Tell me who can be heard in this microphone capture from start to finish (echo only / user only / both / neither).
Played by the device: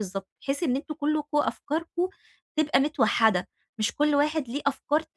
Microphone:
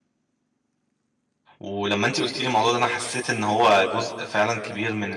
user only